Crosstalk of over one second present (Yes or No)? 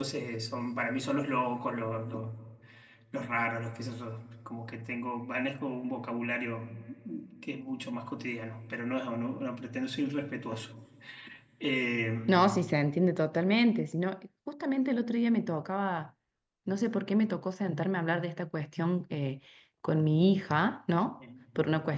No